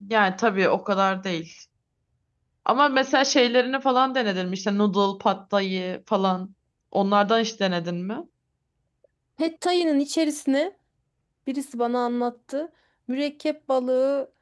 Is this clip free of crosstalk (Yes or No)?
Yes